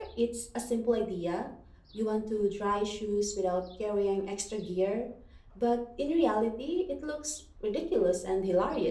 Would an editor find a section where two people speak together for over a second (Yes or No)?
No